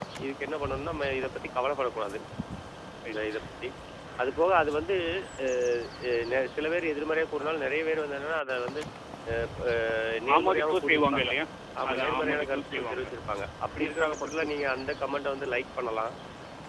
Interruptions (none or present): present